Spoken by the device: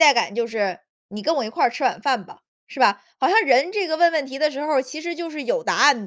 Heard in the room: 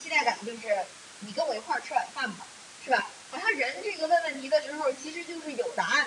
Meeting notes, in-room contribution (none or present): none